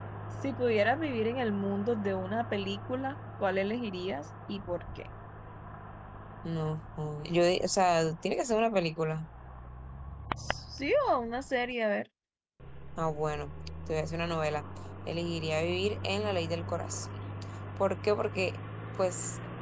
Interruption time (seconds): none

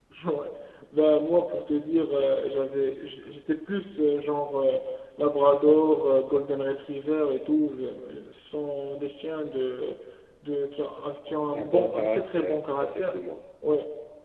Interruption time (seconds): 11.5 s

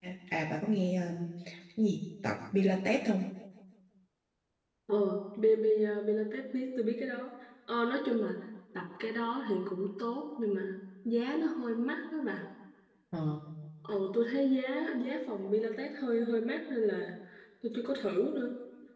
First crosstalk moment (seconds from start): none

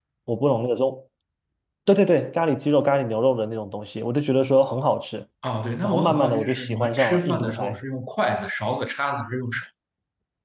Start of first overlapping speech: 5.8 s

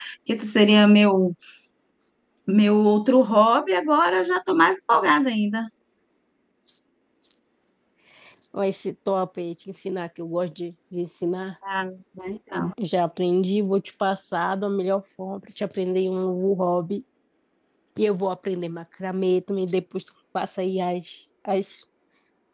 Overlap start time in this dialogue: none

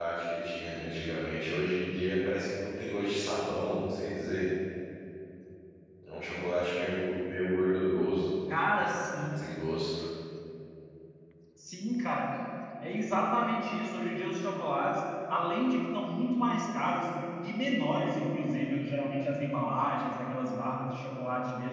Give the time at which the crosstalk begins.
none

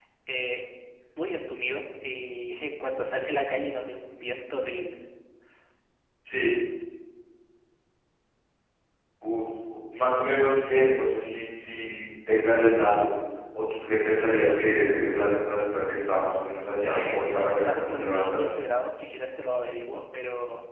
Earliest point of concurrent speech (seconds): 16.9 s

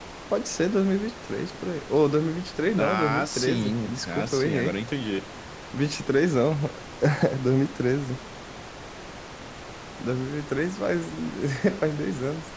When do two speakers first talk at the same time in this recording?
2.8 s

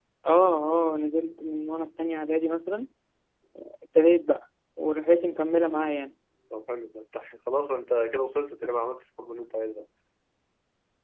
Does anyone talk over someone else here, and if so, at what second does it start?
none

